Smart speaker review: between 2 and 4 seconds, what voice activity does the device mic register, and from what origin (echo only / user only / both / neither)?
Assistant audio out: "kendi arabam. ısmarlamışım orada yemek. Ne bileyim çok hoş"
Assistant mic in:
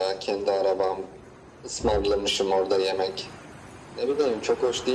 echo only